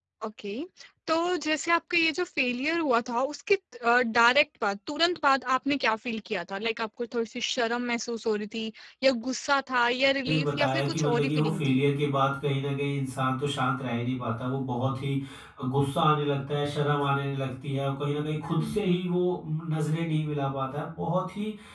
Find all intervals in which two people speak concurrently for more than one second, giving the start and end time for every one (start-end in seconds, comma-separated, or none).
10.3-11.8